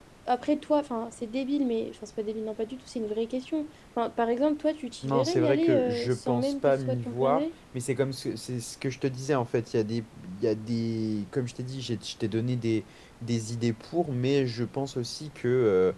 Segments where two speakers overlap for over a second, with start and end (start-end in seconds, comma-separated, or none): 5.0-7.4